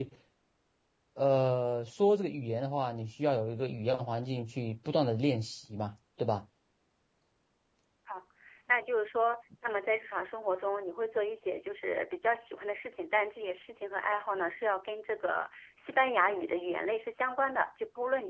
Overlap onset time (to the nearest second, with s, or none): none